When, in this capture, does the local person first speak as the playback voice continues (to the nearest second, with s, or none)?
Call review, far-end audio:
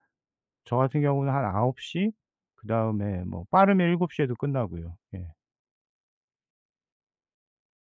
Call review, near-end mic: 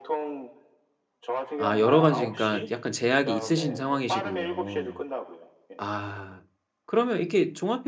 2 s